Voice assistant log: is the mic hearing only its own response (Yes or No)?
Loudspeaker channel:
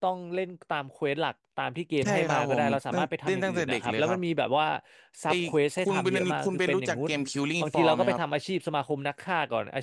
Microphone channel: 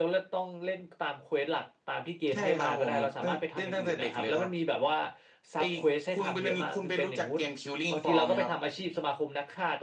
Yes